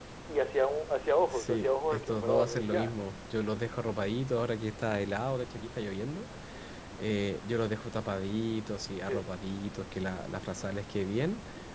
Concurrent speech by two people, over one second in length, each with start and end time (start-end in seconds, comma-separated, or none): 1.2-2.9